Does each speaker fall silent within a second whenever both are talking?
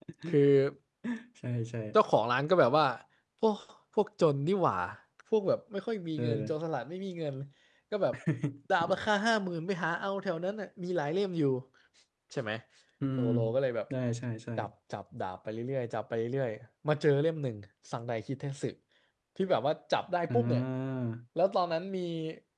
Yes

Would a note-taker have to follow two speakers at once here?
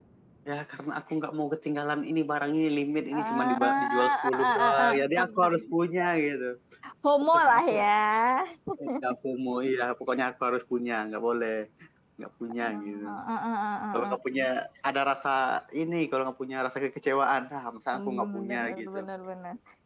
Yes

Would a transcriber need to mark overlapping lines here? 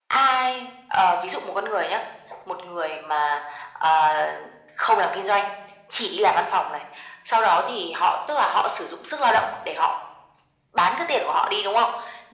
No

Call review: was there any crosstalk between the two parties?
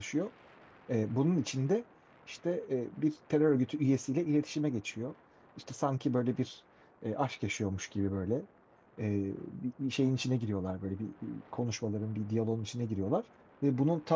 No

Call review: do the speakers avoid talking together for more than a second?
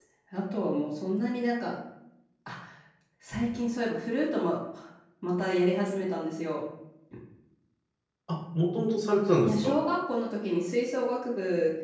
Yes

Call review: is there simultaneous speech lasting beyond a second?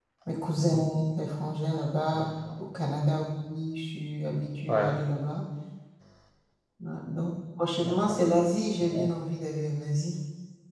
No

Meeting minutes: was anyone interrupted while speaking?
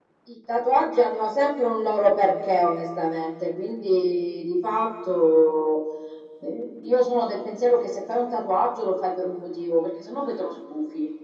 No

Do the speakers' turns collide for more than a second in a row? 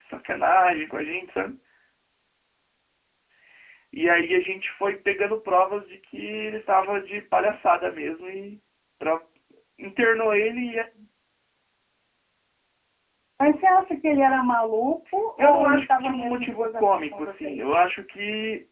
Yes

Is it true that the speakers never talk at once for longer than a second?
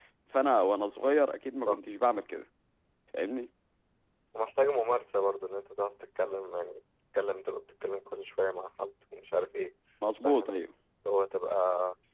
Yes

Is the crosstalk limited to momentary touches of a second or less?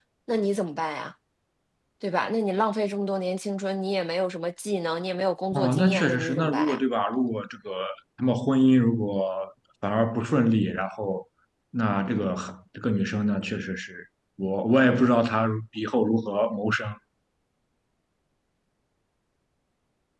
No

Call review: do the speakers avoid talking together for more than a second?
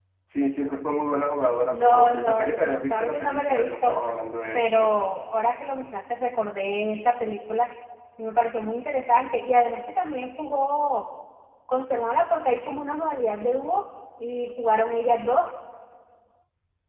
No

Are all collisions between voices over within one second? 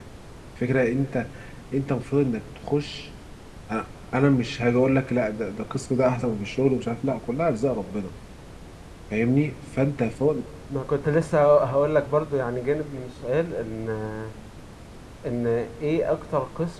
Yes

